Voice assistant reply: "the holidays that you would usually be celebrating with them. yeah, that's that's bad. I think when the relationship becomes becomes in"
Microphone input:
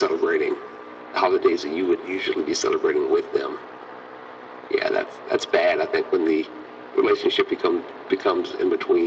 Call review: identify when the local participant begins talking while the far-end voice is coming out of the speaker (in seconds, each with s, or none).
none